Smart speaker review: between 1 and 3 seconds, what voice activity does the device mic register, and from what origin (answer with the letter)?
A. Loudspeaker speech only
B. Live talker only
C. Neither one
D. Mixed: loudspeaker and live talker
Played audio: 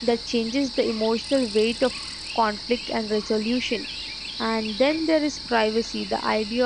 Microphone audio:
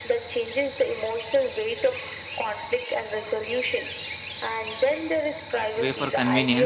A